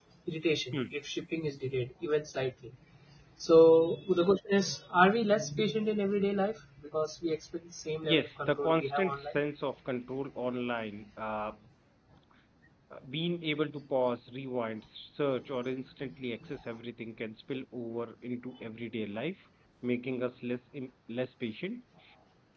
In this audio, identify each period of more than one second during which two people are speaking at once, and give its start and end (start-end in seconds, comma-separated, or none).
8.0-9.4